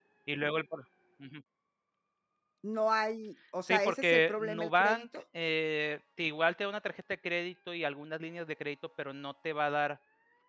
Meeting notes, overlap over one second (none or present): present